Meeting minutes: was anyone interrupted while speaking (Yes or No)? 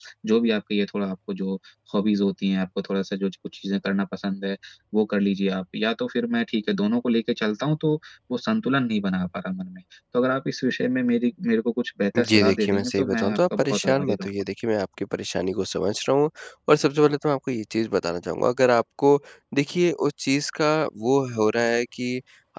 Yes